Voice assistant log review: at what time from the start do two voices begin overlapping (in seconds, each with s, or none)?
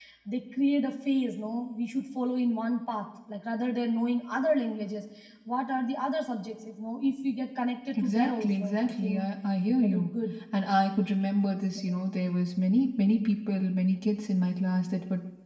8.0 s